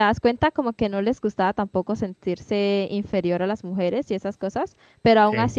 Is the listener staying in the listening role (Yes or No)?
Yes